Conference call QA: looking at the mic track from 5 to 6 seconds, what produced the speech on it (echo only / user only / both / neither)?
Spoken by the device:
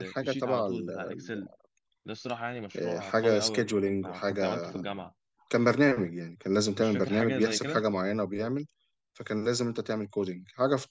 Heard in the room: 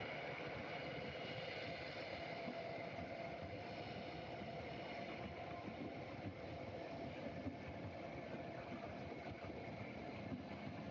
neither